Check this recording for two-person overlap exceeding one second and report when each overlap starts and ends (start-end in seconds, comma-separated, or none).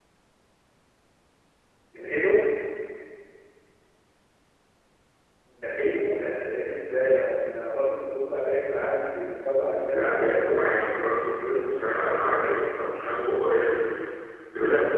9.8-12.5